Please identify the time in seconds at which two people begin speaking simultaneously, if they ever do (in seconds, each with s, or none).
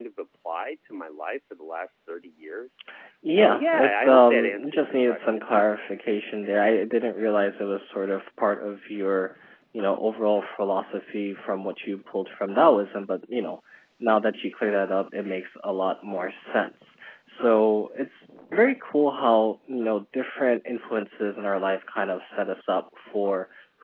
3.3 s